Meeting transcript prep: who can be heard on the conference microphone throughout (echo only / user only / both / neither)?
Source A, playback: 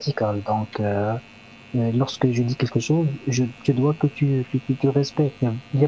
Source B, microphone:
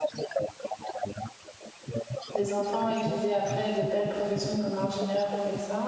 both